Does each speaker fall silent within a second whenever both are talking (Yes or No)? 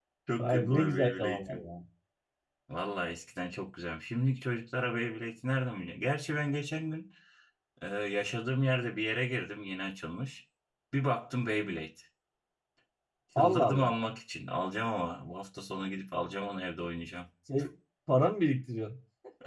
No